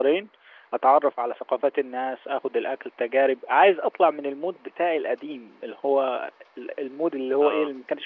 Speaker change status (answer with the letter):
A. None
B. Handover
A